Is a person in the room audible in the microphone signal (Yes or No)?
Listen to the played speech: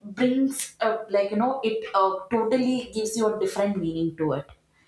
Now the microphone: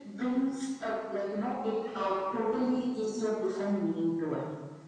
No